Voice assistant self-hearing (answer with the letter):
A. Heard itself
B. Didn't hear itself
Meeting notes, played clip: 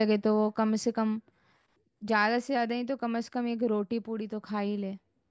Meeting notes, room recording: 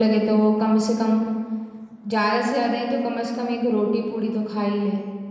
A